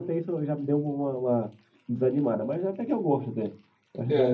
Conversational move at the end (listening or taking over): taking over